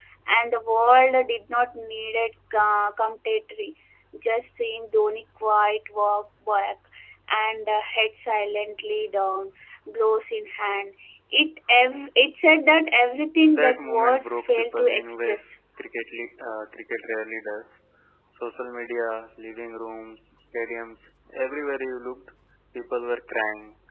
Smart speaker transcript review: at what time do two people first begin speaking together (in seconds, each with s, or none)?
13.5 s